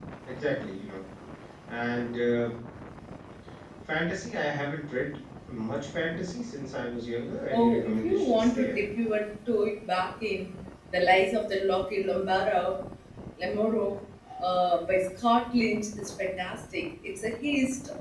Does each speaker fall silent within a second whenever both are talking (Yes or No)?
No